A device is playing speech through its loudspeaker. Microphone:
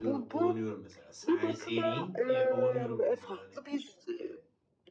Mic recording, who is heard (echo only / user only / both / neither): both